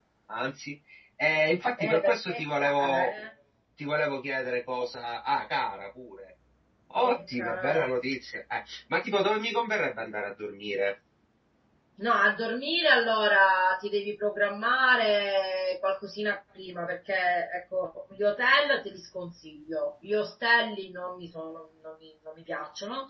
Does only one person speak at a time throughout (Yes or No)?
No